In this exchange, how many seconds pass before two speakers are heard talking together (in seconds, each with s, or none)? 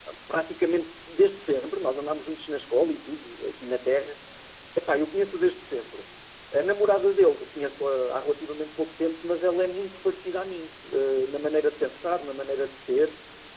none